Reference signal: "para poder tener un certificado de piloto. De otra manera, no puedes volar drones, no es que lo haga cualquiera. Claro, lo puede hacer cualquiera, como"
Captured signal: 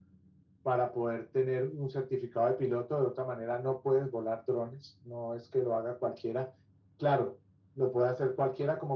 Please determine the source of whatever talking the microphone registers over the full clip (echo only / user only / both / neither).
echo only